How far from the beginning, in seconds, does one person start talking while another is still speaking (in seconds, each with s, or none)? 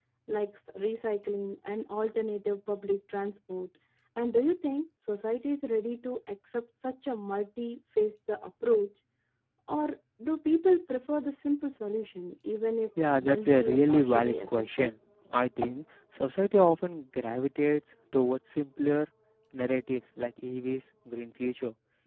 13.0 s